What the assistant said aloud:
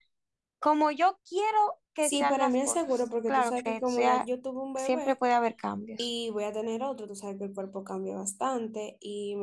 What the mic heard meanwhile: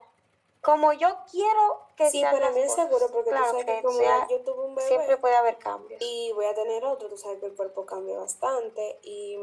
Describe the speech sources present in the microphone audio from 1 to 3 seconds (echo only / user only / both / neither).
echo only